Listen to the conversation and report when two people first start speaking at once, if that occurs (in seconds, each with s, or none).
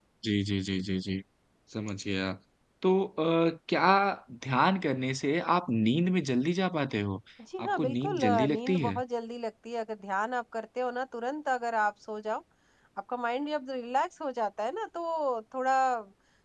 7.6 s